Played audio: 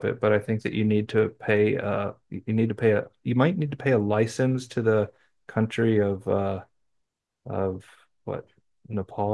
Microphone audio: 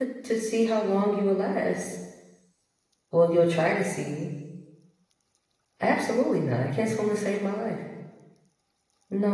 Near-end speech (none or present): present